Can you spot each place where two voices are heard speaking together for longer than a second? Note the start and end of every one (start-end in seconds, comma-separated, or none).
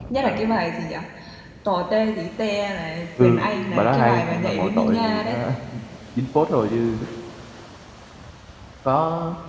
3.2-5.4